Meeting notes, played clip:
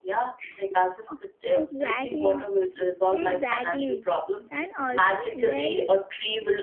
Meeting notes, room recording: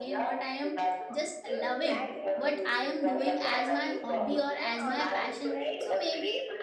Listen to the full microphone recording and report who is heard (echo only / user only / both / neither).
both